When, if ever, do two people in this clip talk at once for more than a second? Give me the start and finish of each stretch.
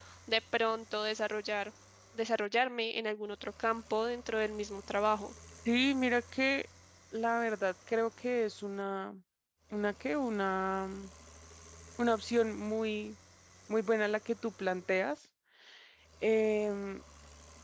none

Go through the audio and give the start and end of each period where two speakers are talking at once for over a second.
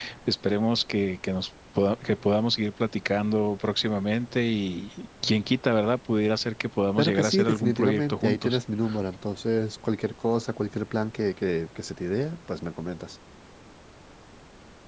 7.0-8.6

